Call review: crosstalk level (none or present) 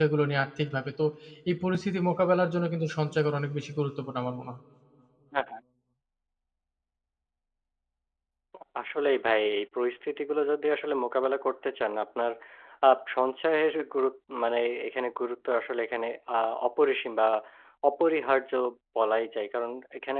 none